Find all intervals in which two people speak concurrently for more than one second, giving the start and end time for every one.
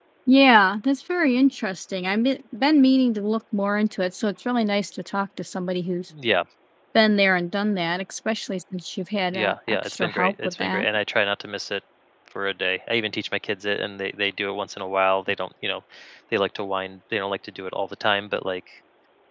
9.3-10.8

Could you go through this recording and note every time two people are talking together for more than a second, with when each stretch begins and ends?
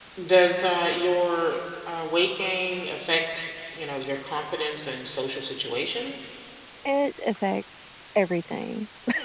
none

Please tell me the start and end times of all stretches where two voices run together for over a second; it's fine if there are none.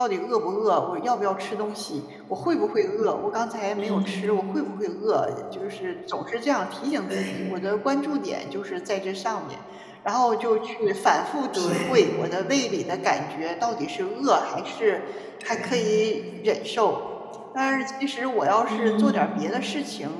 none

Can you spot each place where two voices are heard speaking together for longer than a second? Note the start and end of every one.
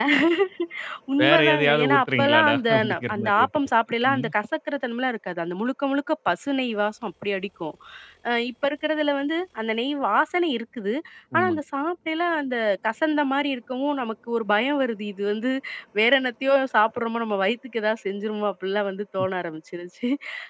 1.2-3.5

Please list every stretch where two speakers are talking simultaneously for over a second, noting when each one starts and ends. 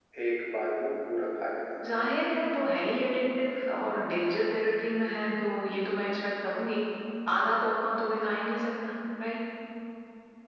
none

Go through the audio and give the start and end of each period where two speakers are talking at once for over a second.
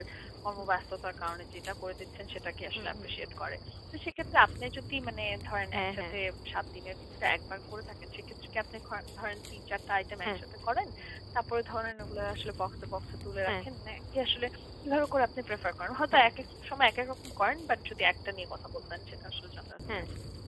none

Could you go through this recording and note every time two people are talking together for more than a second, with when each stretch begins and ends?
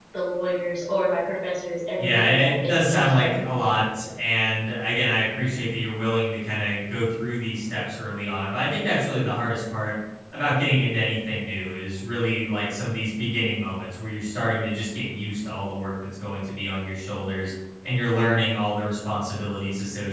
2.0-3.6

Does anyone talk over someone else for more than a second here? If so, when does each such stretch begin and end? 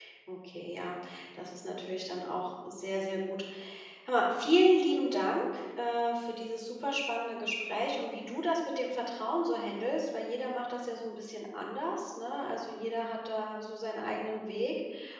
none

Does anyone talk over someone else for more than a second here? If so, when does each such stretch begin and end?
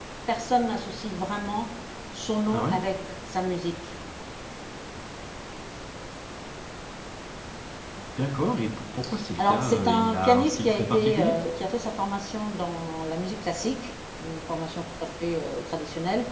9.4-11.3

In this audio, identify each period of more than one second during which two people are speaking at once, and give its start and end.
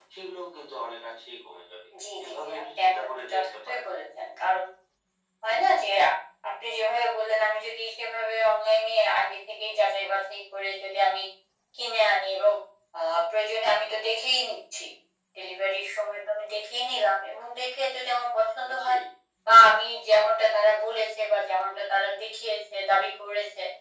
2.2-3.8

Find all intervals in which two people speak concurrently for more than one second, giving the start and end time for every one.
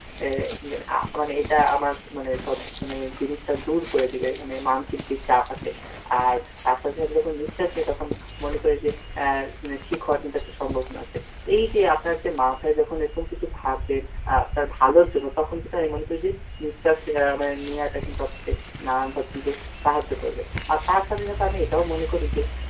none

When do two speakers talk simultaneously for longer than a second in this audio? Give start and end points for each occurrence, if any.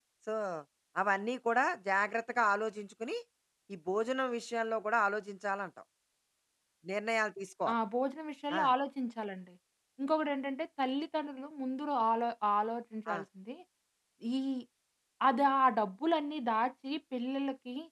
none

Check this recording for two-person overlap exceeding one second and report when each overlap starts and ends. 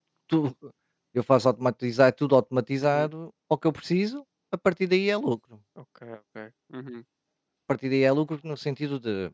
none

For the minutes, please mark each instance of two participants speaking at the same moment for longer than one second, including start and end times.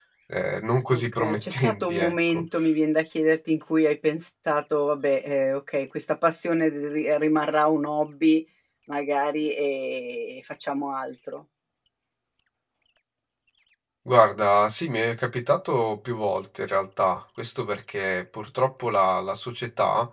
0.9-2.4

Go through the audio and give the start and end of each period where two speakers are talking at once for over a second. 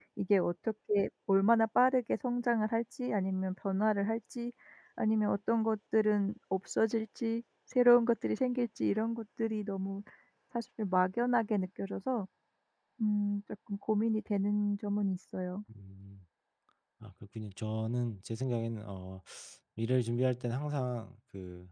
none

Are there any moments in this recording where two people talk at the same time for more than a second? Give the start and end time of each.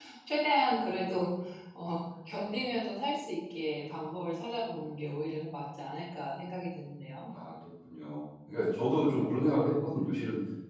none

